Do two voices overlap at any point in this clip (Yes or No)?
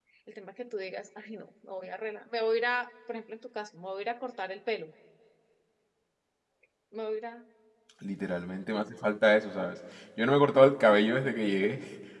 No